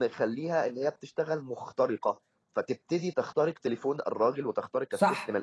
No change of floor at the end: No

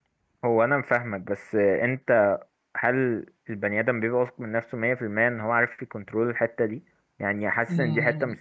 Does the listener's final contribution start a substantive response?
No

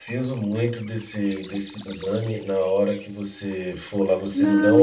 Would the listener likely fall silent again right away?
No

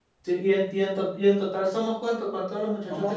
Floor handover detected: Yes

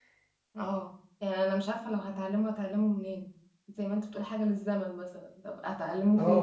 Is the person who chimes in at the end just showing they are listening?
No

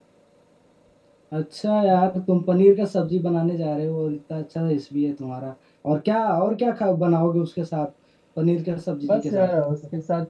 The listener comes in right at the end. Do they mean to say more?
Yes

